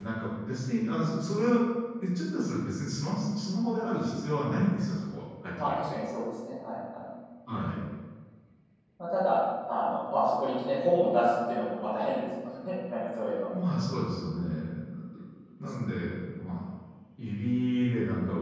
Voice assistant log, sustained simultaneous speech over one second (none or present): none